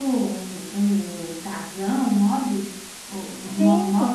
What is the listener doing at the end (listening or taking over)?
taking over